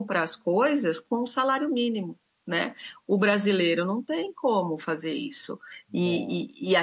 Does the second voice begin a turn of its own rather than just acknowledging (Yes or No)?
No